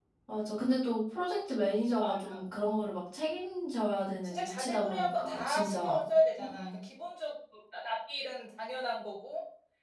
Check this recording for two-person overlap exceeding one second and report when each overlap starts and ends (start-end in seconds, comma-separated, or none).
4.2-6.0